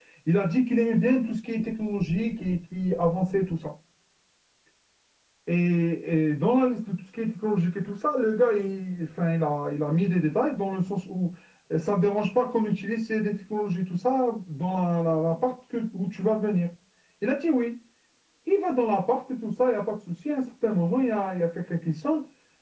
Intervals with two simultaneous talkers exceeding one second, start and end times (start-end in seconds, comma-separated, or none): none